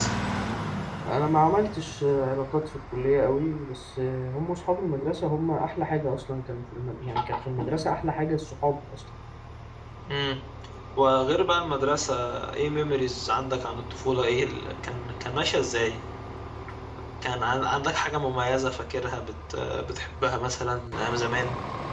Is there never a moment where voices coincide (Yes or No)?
Yes